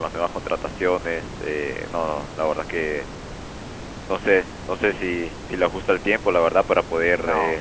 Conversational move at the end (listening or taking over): taking over